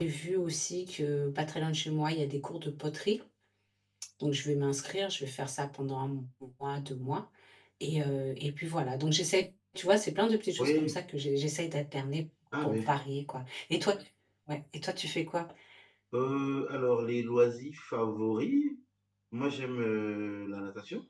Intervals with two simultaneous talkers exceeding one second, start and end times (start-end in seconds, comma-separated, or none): none